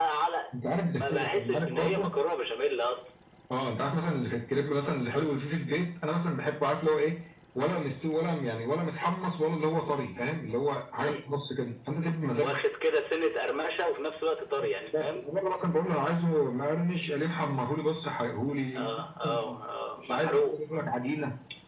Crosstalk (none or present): present